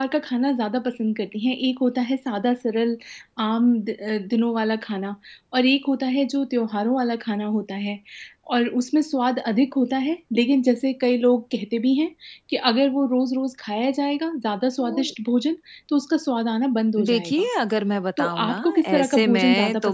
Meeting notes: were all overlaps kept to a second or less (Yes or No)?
No